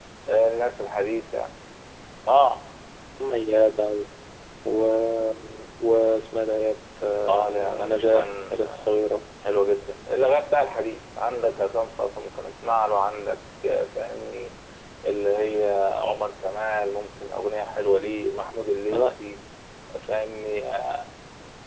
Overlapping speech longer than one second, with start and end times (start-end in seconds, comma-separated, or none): 7.3-8.9